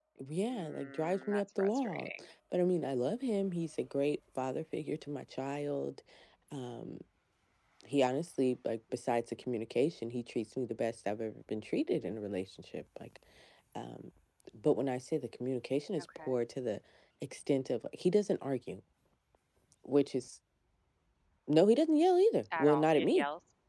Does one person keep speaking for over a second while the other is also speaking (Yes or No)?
Yes